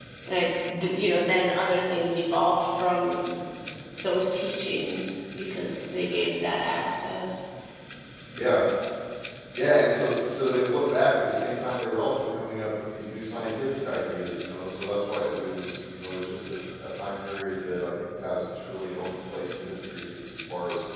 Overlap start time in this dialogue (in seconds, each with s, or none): none